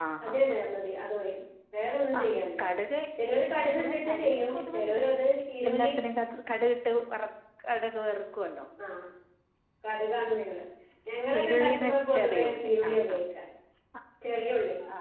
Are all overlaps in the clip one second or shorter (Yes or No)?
No